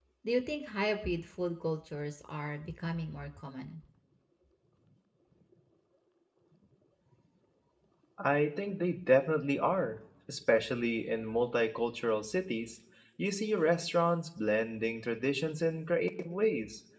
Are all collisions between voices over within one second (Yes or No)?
Yes